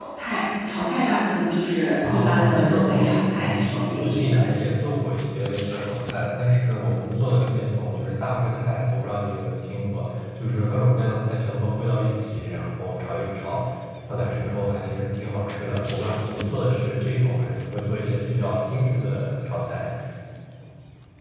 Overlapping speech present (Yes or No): Yes